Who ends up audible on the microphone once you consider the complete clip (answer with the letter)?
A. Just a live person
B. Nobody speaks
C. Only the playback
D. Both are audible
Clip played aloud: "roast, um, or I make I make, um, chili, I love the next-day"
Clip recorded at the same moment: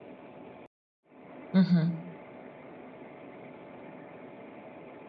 A